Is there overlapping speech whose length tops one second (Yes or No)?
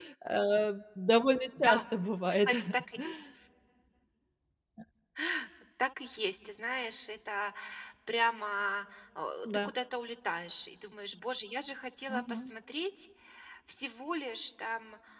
No